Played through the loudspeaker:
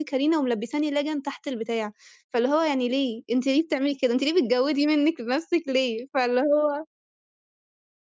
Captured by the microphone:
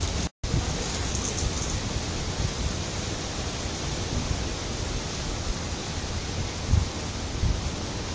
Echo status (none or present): none